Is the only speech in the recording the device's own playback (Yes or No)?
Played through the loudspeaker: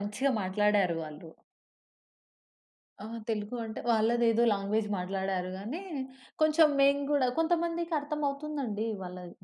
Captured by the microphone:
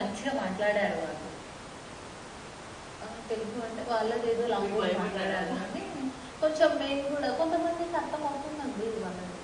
No